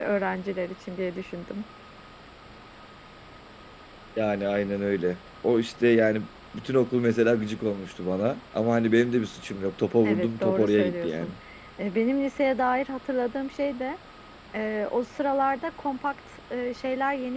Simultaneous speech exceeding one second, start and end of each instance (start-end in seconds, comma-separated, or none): 10.0-11.3